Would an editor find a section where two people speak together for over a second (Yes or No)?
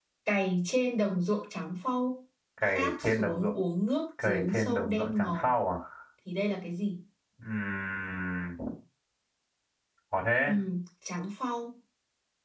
Yes